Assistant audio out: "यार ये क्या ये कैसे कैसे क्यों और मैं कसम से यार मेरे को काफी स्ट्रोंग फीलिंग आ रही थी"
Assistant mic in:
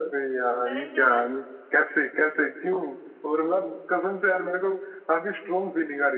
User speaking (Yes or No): Yes